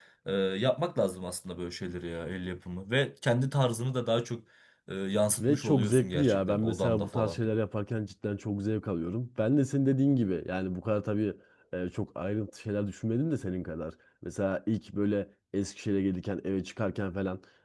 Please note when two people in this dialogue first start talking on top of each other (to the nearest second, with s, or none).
5 s